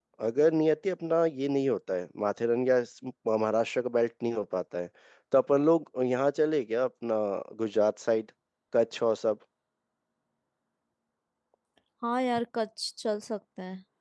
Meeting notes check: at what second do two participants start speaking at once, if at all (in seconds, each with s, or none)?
none